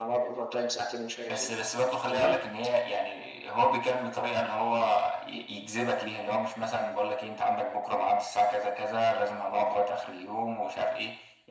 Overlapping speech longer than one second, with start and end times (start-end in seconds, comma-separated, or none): none